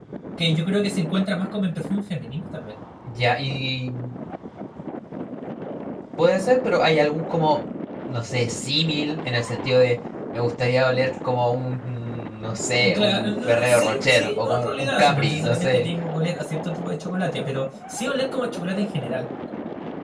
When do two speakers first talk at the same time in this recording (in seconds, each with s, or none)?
12.8 s